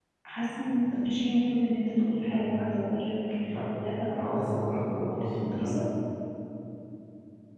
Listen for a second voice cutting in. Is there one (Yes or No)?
Yes